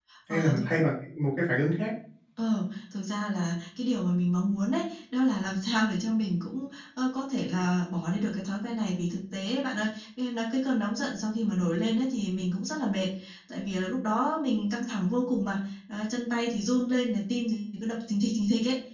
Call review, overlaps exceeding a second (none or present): none